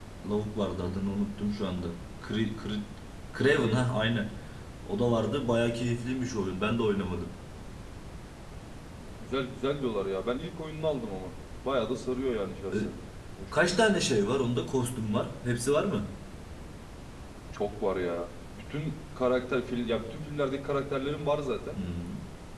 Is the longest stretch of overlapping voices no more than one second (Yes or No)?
Yes